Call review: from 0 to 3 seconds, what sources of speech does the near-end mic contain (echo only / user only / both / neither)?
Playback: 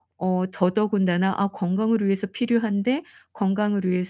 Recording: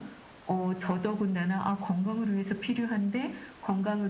echo only